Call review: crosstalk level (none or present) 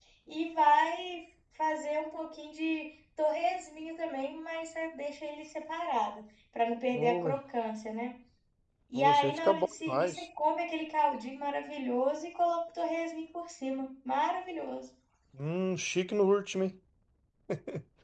present